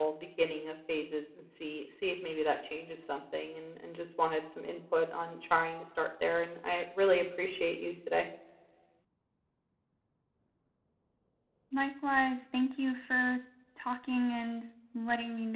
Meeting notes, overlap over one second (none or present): none